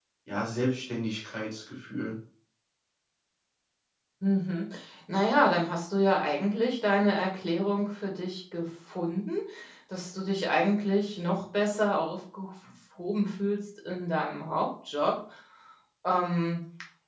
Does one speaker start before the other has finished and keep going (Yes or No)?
No